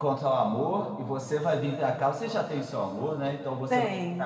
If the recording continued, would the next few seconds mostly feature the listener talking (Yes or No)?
No